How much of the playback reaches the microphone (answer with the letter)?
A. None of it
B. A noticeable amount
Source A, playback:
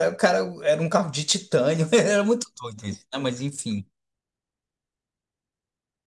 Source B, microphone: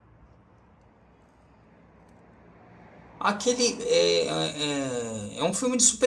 A